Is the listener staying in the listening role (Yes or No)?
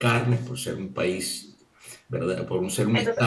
Yes